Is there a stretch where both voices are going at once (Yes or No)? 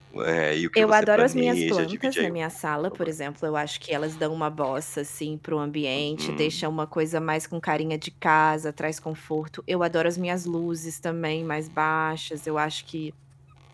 Yes